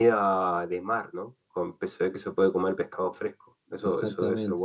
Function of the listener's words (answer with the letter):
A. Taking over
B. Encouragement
A